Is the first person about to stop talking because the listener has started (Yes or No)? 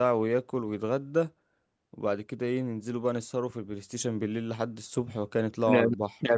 Yes